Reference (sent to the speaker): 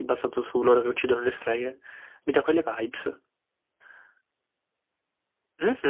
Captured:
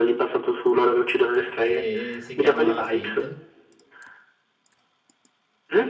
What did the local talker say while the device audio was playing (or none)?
E si chiama Fade.